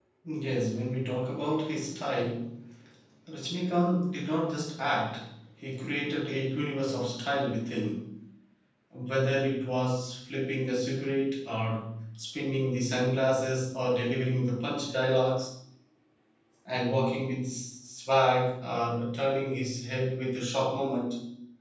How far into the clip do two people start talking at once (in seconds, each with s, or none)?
none